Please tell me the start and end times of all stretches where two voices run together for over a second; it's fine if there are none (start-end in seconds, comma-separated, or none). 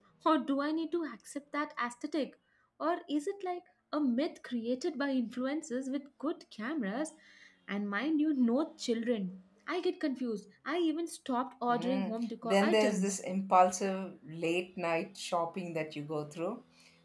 11.7-13.2